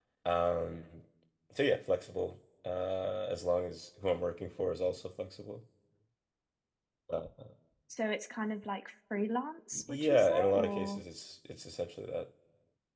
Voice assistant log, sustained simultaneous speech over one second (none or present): present